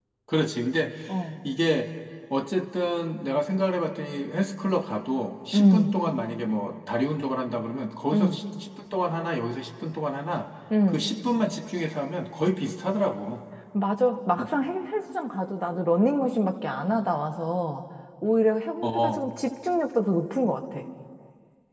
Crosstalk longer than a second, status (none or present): none